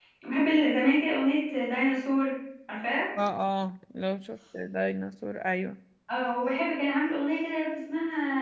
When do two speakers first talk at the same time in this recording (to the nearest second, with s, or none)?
none